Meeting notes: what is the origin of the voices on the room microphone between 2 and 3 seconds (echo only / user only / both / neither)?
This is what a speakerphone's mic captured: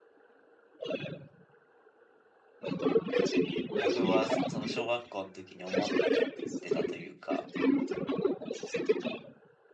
echo only